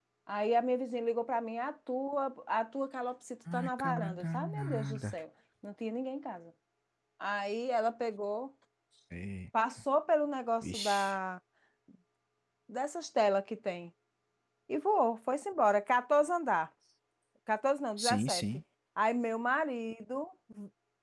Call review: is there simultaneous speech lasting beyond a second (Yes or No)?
Yes